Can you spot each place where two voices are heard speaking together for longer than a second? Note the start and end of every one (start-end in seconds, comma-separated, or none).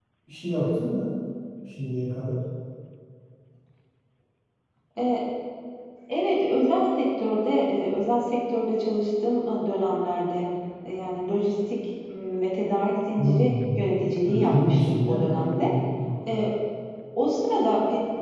14.2-15.7